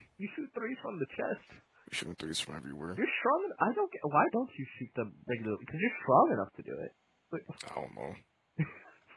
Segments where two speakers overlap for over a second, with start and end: none

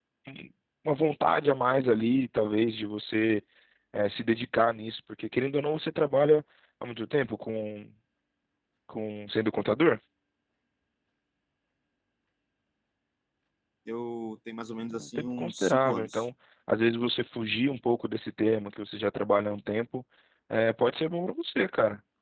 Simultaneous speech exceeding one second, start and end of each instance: 14.9-16.3

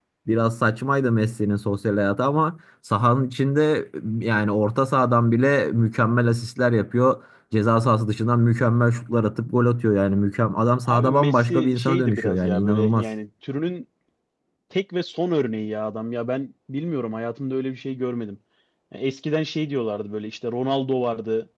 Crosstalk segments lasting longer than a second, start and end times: 10.8-13.0

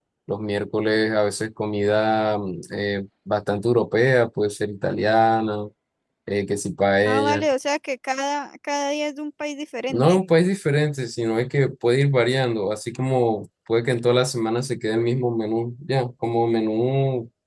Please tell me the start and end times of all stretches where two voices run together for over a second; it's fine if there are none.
none

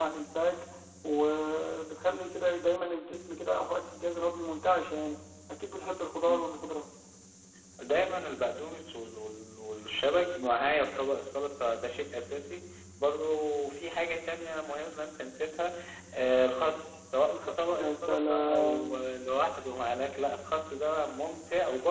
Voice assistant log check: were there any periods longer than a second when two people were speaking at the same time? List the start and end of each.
17.3-19.1

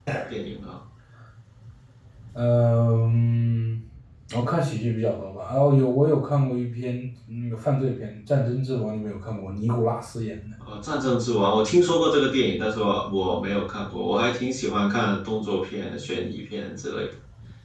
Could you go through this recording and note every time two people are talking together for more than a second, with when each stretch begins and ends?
none

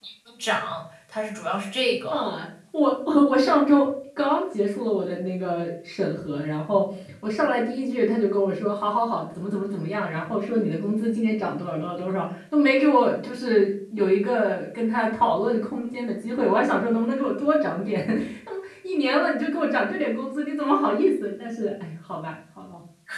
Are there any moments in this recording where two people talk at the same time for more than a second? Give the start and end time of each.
none

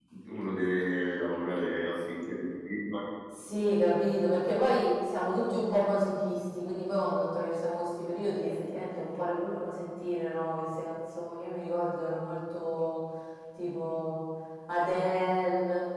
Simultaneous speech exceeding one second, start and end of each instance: none

